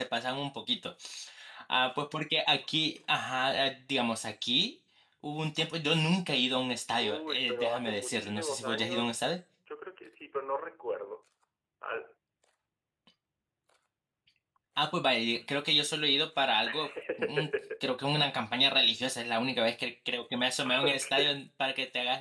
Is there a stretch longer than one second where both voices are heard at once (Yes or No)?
Yes